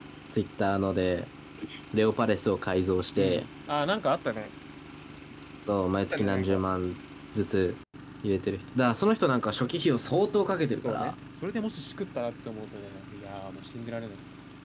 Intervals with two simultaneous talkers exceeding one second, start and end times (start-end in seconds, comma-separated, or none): none